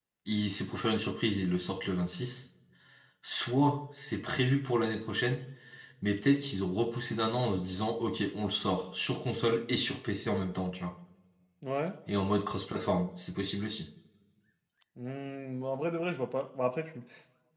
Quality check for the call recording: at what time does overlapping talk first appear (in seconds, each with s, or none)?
none